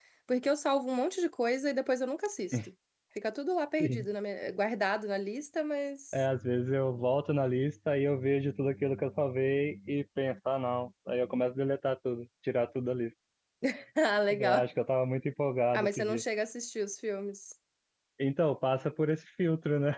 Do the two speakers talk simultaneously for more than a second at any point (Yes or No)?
No